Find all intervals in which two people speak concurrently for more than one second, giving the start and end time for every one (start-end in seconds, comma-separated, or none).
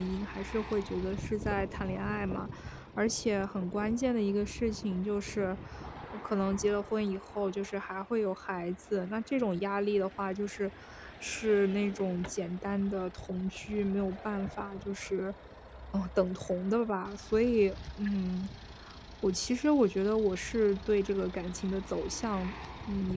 none